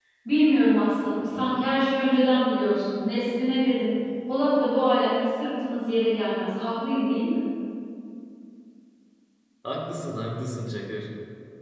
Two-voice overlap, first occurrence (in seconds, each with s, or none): none